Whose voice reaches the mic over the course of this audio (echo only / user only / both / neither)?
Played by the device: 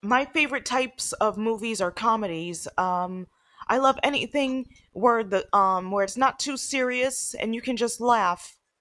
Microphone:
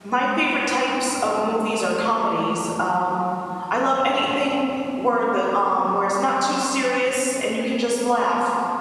echo only